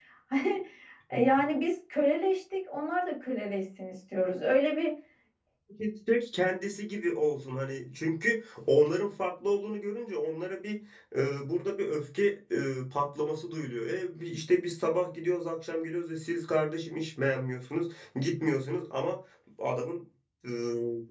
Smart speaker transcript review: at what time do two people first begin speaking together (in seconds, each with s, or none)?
none